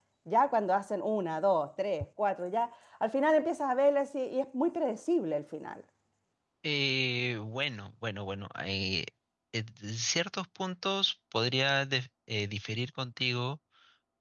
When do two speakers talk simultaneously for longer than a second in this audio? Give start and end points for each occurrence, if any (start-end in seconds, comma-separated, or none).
none